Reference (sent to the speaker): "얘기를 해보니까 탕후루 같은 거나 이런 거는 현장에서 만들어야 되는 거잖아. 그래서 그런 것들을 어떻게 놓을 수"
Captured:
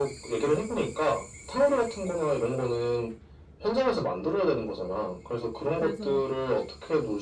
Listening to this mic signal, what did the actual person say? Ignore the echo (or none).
그래서